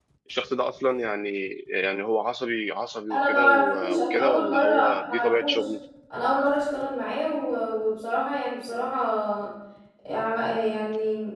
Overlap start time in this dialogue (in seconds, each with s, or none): 3.1 s